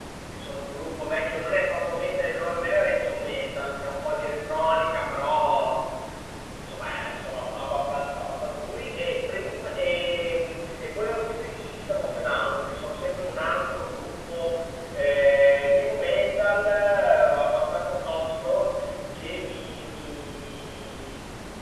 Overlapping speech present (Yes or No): No